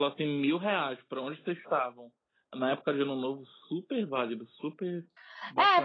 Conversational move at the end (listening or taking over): taking over